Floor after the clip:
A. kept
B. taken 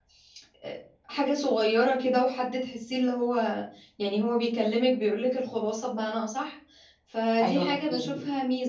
A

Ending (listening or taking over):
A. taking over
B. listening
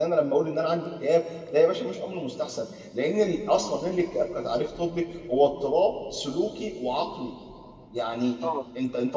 B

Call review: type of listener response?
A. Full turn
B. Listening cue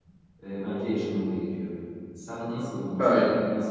B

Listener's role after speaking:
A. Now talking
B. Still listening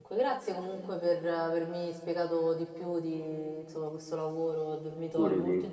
B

